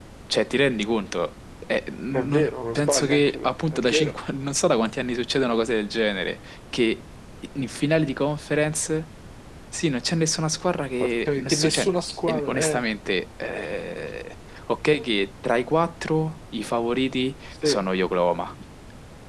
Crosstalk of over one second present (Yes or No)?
Yes